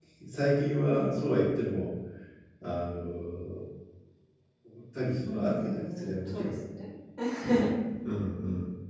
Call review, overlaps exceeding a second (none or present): present